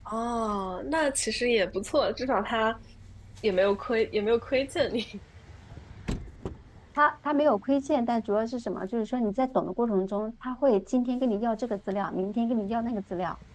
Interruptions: none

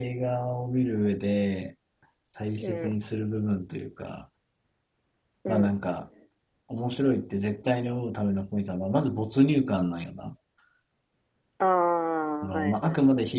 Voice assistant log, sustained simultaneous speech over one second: none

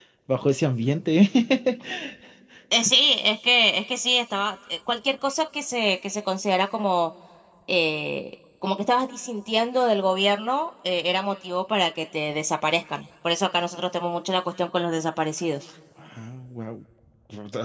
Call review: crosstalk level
none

